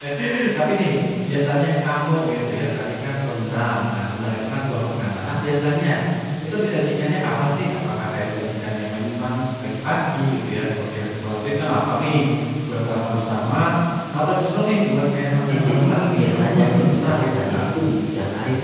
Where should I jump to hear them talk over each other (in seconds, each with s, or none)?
15.5 s